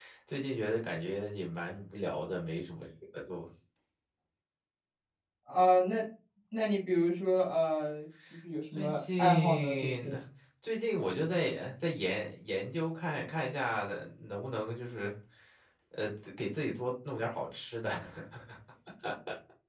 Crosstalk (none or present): present